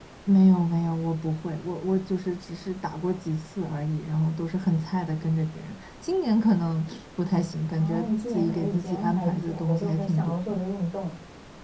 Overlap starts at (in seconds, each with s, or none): 7.8 s